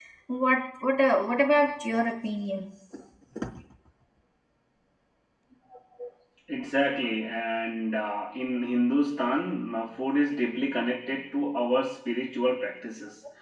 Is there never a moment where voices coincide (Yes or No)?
Yes